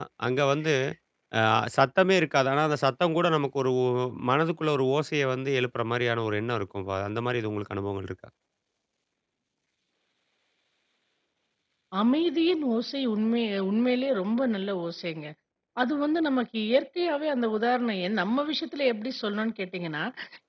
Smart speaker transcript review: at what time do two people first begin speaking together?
none

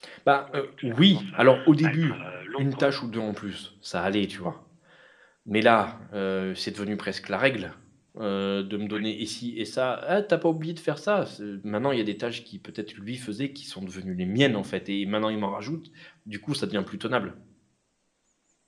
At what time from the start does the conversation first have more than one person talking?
0.5 s

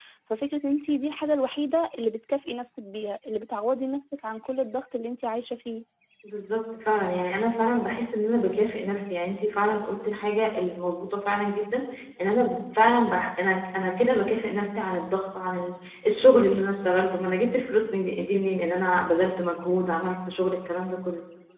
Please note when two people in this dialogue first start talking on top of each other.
none

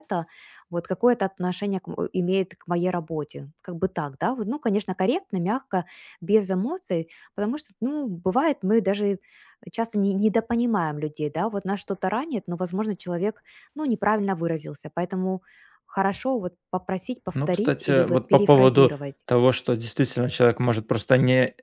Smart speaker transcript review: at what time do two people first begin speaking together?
17.4 s

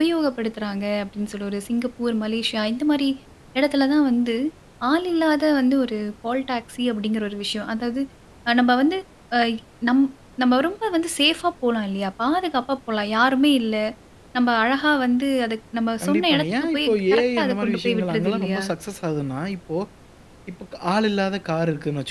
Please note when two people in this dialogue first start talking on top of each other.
16.0 s

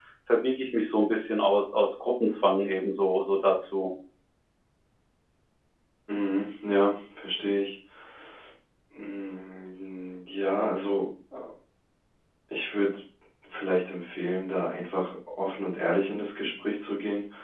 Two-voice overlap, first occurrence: none

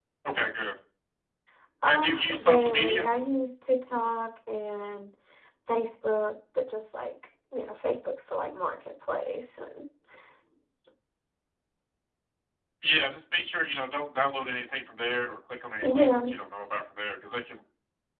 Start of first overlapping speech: 1.8 s

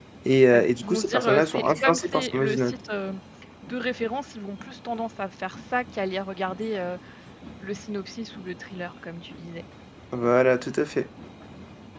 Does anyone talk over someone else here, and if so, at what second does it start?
0.5 s

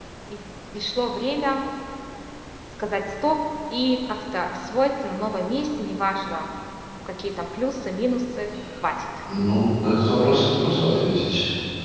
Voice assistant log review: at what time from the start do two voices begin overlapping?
none

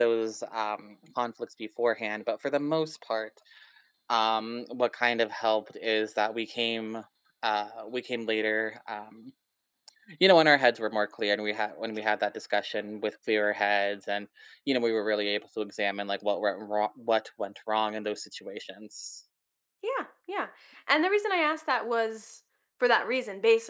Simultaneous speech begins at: none

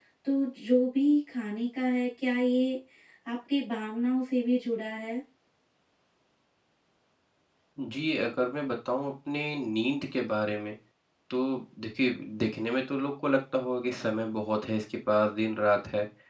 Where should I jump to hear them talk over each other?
none

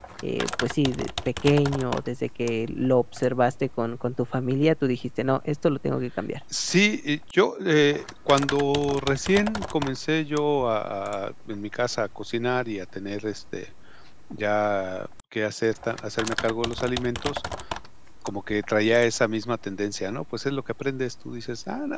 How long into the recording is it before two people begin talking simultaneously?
none

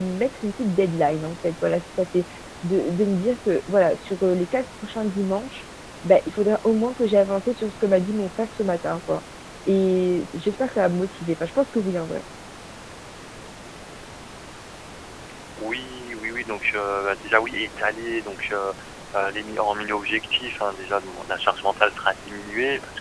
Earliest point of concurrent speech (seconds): none

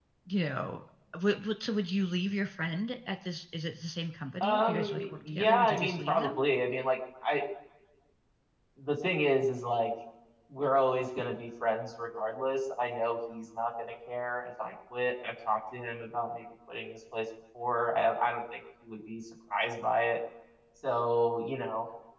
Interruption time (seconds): 4.4 s

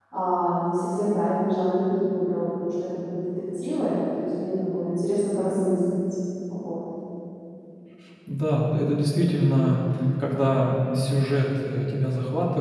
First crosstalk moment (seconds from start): none

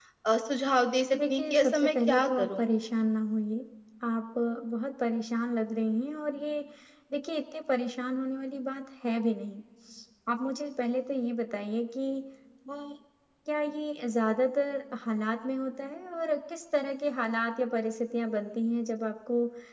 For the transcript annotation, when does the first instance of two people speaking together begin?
1.3 s

